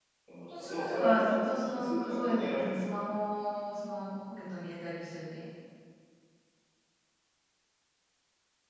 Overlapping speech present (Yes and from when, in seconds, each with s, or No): Yes, from 0.5 s